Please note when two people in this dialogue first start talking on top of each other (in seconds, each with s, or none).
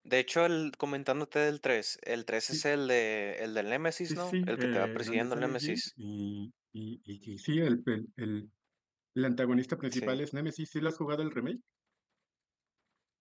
4.1 s